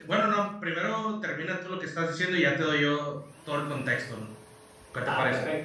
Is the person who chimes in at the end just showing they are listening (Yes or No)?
No